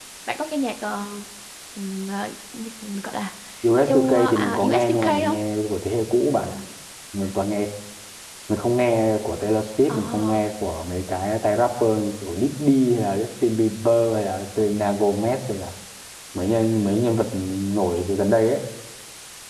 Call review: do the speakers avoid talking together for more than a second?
No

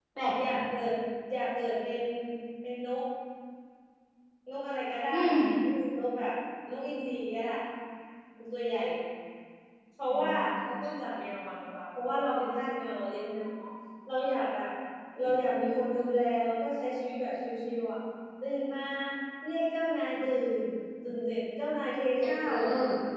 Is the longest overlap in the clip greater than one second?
No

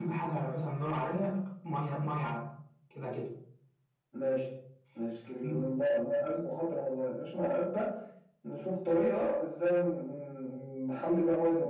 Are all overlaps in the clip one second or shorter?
Yes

